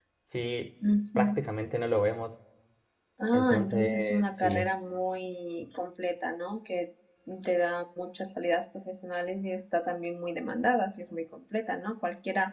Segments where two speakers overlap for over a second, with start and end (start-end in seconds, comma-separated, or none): 3.3-4.7